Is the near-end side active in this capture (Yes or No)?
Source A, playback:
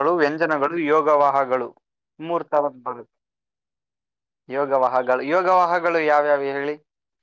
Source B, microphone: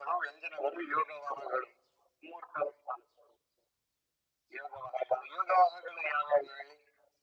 No